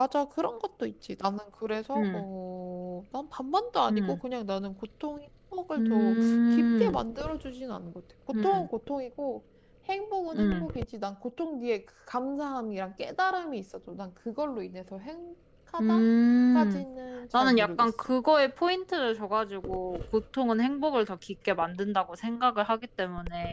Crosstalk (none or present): present